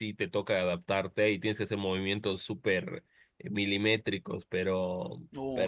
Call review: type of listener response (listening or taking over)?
taking over